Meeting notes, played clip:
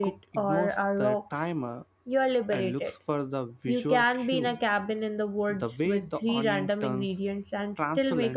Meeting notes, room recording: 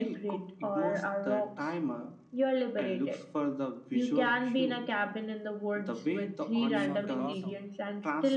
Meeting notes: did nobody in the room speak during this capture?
No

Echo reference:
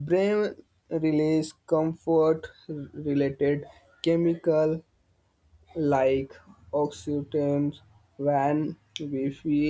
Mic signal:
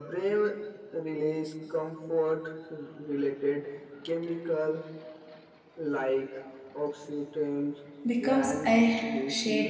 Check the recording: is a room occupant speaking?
Yes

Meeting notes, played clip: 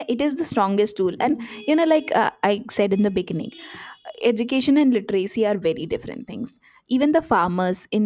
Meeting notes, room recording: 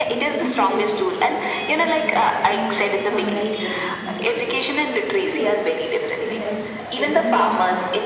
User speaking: Yes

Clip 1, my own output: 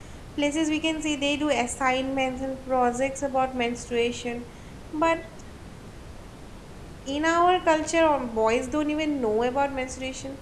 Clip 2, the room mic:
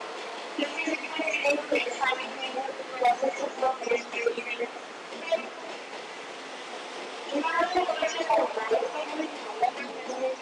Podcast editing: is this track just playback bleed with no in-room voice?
Yes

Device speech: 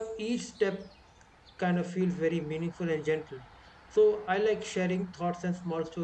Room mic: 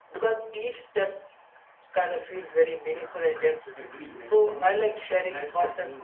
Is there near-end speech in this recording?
Yes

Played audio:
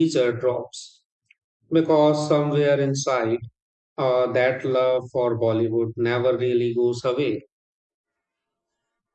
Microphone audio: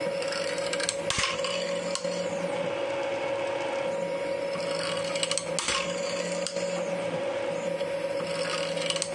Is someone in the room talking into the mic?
No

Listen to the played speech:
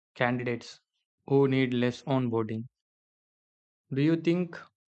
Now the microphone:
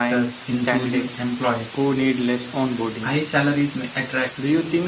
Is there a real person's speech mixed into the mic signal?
Yes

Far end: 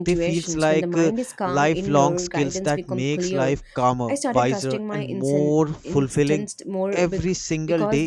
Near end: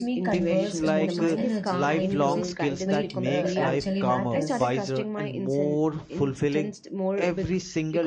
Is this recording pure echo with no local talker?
No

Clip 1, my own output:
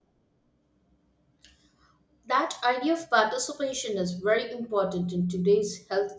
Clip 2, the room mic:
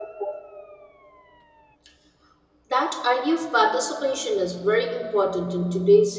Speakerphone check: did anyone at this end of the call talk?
No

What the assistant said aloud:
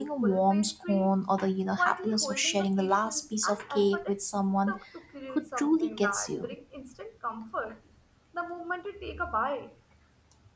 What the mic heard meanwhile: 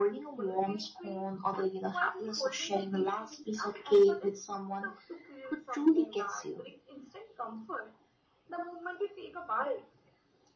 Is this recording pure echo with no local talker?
Yes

